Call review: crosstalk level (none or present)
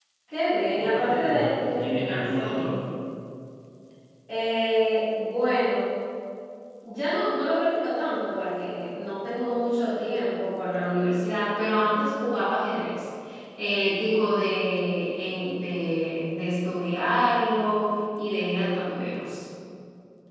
present